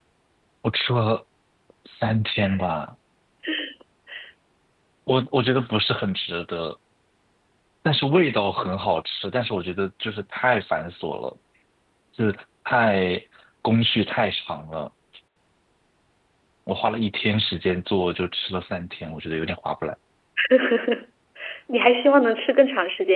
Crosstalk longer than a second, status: none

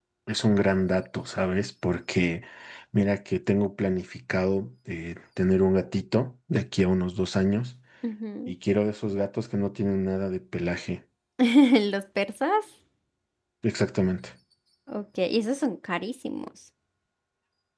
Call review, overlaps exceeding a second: none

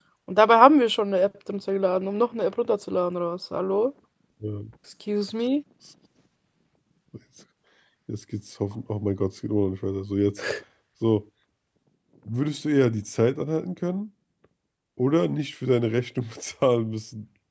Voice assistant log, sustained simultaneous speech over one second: none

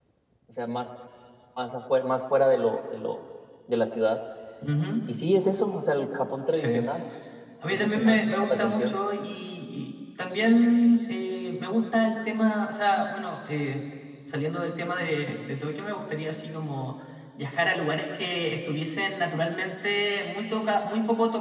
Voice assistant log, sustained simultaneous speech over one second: present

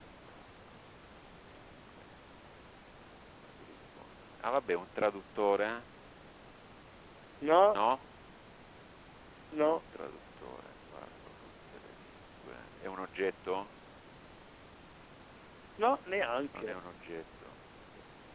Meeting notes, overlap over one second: none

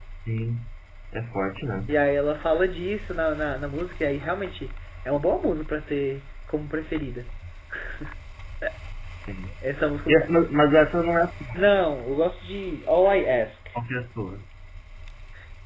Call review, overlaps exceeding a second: none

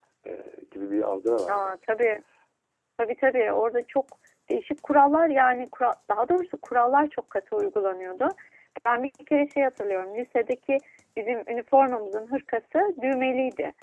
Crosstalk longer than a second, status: none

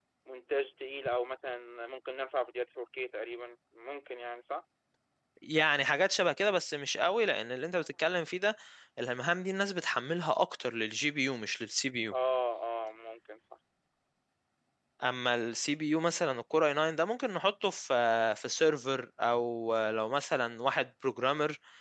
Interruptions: none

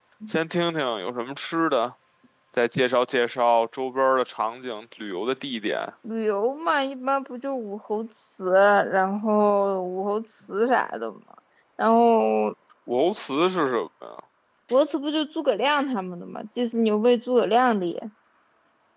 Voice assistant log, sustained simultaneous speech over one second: none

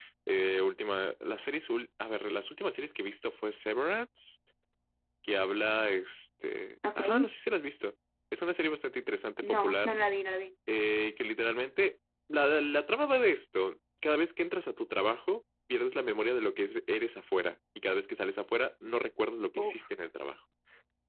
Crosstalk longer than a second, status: none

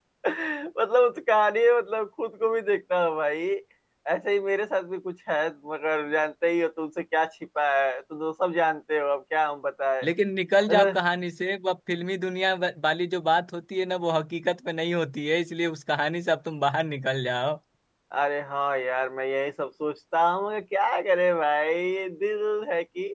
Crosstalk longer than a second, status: none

